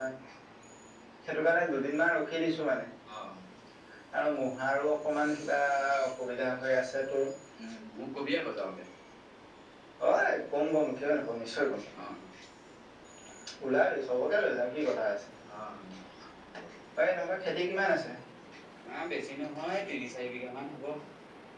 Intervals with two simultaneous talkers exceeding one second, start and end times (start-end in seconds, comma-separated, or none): none